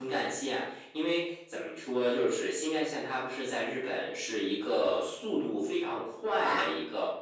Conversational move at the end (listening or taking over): listening